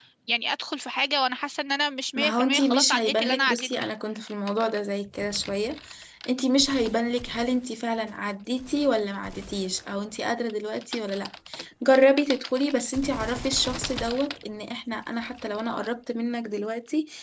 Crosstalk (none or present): present